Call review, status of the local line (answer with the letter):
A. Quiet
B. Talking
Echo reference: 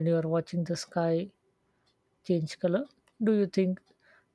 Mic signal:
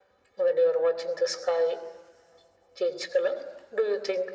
A